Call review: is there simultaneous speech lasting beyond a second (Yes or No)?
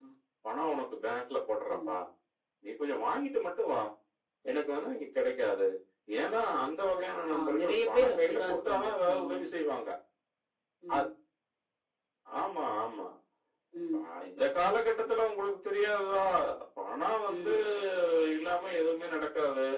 Yes